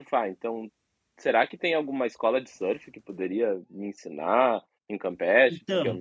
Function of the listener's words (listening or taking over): taking over